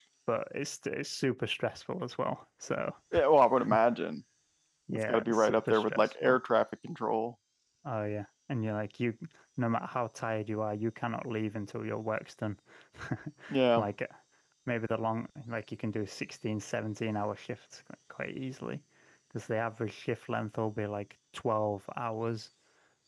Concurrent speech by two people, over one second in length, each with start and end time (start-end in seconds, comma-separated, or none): 4.9-6.4